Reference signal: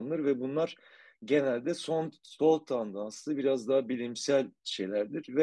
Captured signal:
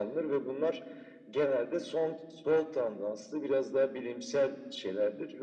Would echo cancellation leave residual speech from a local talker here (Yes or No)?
No